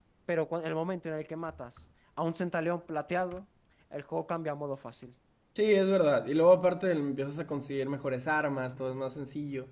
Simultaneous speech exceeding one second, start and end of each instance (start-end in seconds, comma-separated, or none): none